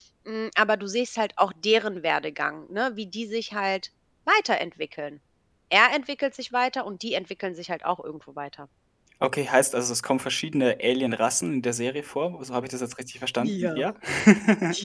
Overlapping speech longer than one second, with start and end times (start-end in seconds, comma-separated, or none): none